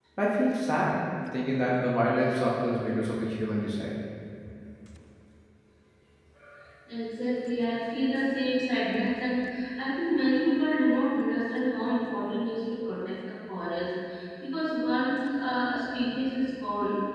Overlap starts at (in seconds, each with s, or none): none